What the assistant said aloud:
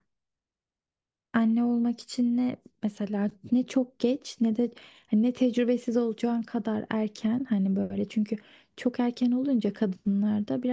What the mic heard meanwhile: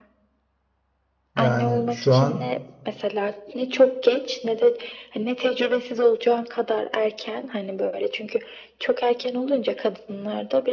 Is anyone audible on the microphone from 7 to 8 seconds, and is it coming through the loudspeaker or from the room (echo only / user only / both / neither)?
echo only